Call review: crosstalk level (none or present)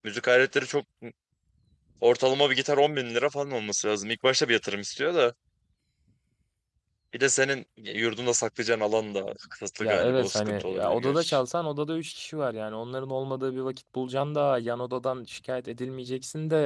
present